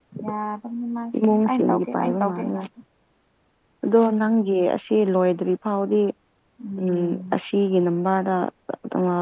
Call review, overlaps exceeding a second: present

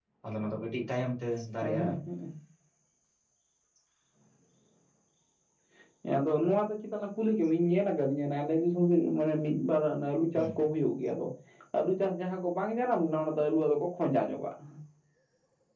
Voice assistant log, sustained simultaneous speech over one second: none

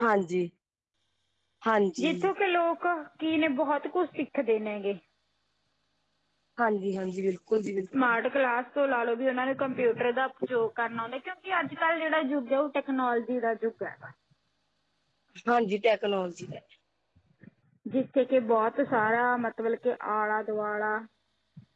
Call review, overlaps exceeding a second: none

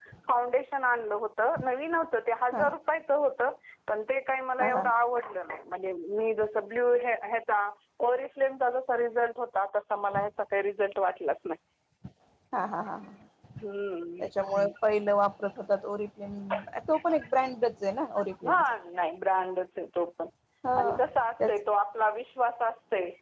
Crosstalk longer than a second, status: none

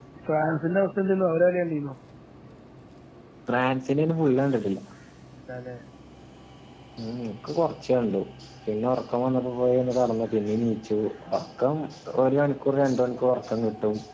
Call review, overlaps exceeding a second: none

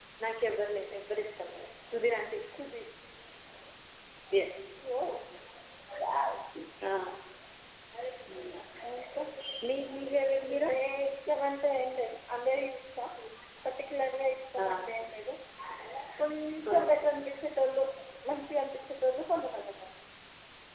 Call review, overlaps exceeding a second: none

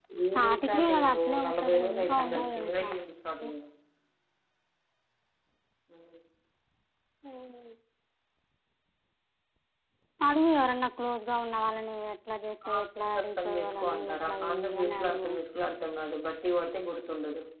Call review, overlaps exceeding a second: present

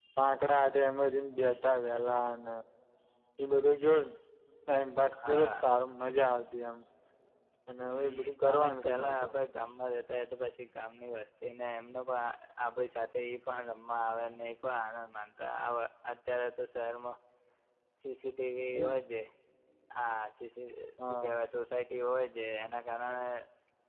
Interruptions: present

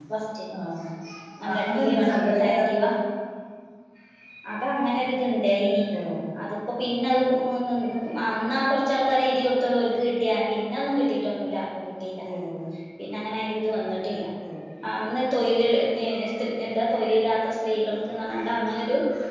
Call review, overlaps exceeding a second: present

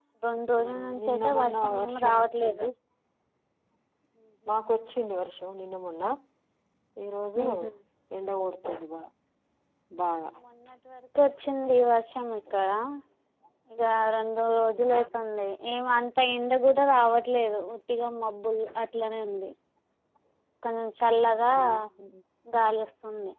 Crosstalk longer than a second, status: present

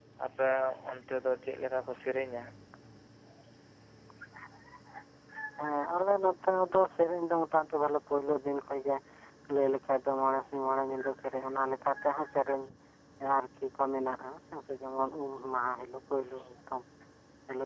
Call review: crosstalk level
none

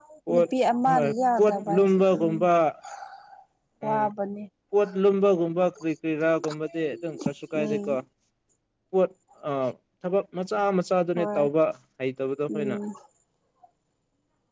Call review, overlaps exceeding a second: present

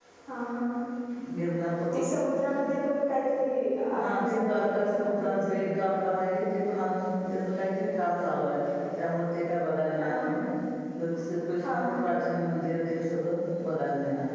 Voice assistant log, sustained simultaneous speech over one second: present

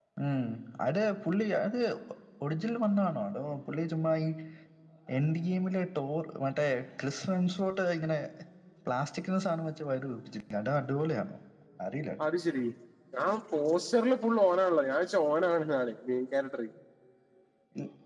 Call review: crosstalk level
none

